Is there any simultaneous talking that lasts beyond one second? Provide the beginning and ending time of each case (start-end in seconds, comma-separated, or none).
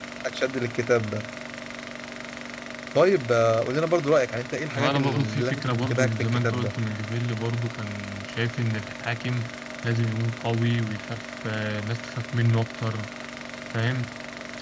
4.8-6.7